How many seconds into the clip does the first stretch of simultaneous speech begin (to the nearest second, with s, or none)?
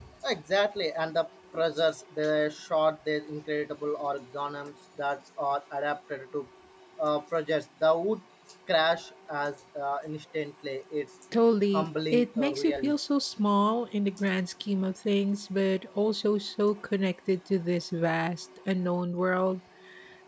12 s